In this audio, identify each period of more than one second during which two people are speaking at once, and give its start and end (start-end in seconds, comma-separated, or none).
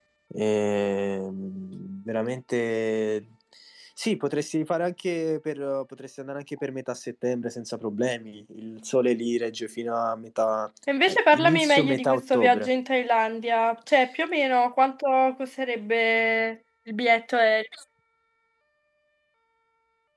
11.0-12.7